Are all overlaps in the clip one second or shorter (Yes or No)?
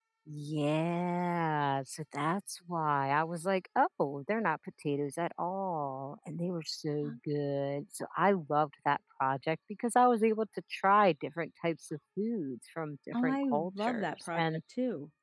No